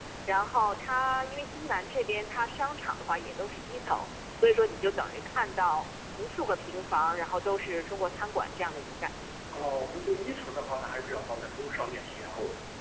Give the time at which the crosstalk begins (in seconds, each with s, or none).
none